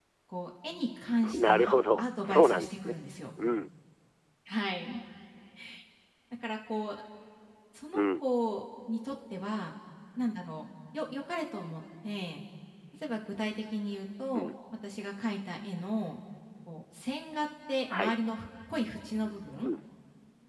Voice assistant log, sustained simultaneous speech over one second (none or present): present